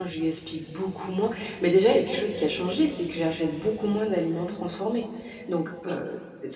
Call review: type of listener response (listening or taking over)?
listening